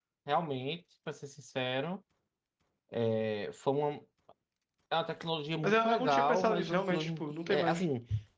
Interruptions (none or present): present